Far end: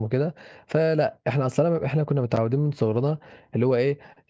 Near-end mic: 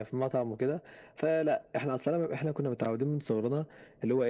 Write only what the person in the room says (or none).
none